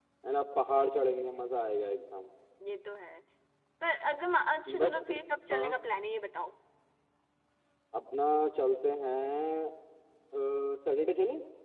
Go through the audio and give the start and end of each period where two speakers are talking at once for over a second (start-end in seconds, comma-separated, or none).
none